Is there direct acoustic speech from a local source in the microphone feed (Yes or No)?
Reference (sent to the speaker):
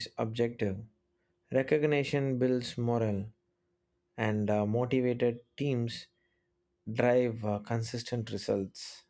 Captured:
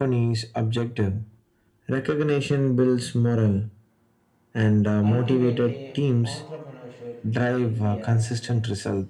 Yes